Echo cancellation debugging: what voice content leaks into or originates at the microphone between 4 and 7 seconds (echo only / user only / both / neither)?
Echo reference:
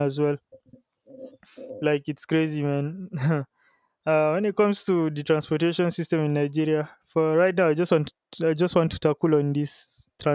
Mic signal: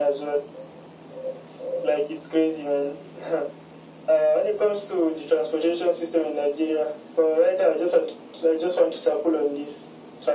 echo only